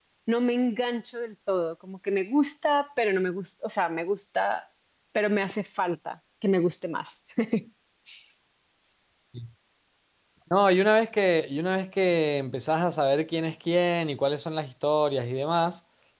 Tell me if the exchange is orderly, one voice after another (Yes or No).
Yes